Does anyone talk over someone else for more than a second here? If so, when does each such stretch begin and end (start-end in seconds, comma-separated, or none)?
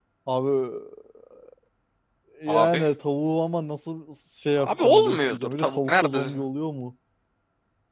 4.6-6.2